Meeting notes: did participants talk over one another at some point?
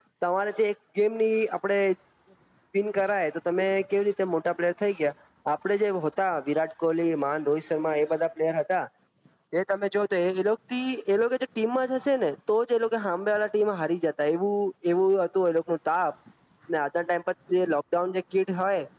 No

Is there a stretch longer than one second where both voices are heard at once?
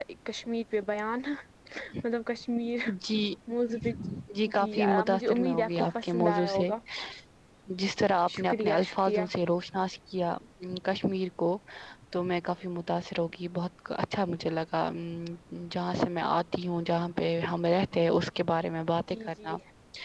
Yes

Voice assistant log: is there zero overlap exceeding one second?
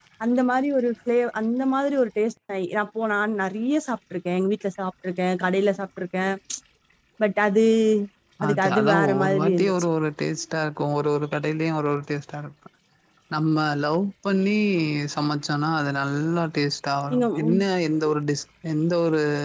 No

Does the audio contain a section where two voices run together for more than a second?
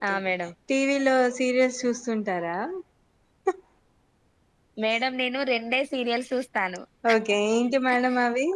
No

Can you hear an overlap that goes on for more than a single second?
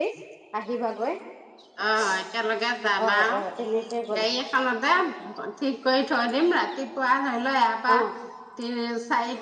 No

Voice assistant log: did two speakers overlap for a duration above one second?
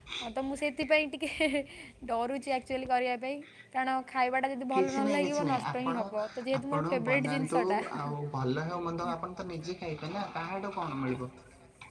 Yes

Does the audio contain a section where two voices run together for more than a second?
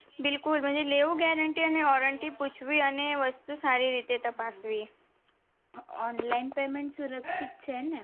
No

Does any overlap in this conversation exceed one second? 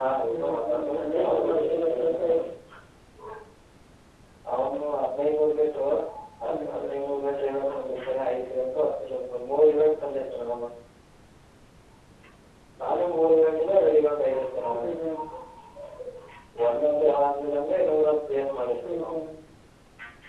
Yes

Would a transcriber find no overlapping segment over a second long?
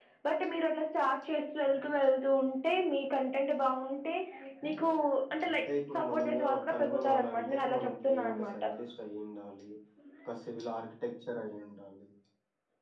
No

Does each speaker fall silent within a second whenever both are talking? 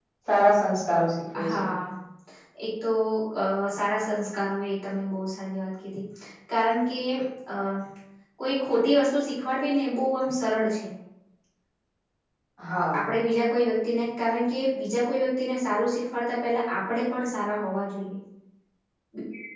Yes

